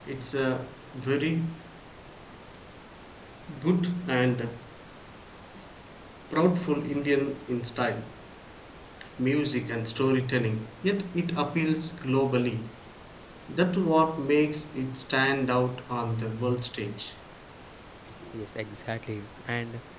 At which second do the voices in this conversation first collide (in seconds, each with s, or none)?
none